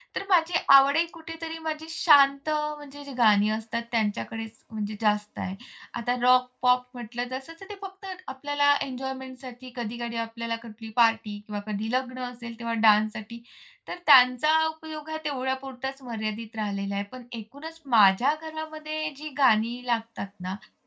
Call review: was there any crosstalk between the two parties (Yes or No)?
No